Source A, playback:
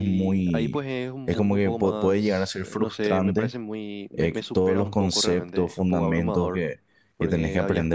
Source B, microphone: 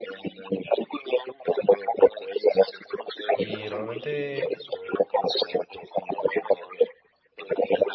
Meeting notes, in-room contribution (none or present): present